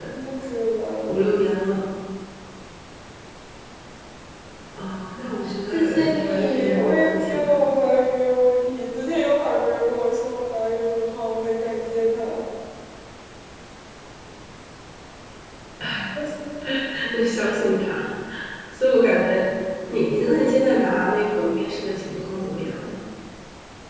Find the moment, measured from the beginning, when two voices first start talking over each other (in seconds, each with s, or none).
5.7 s